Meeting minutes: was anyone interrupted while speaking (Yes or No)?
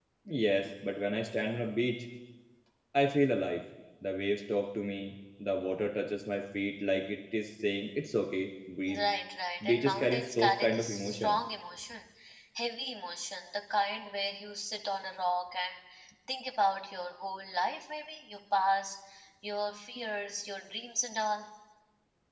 Yes